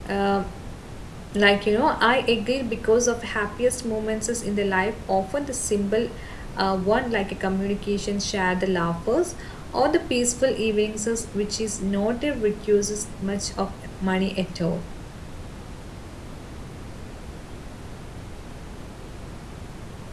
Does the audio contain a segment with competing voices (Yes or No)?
No